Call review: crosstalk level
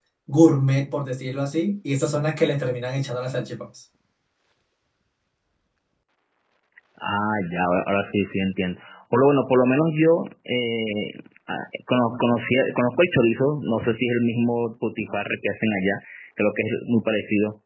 none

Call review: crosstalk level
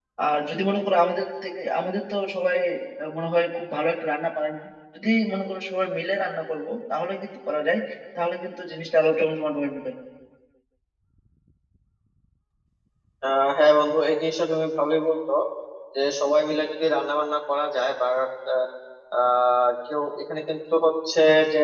none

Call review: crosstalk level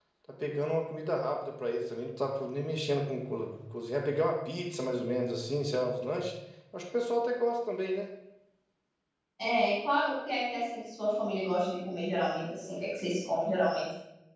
none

